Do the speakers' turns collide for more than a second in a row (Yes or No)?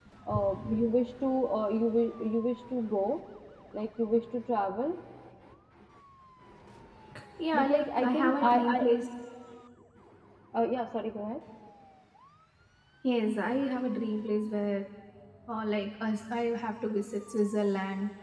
Yes